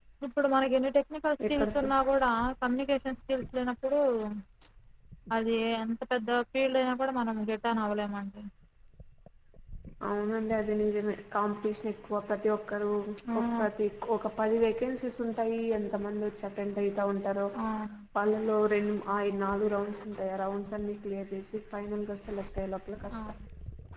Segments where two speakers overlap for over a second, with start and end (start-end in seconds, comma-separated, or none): none